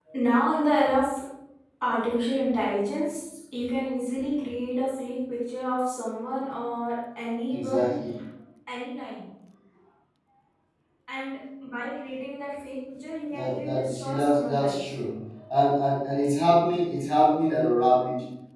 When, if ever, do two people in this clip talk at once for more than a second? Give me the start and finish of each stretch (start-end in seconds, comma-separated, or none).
13.3-14.8